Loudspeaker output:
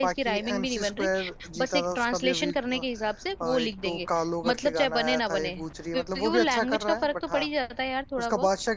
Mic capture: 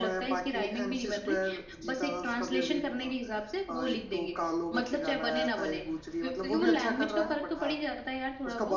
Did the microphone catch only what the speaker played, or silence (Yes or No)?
Yes